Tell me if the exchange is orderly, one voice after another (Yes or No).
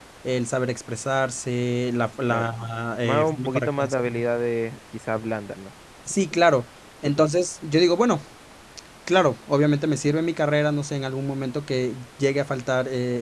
No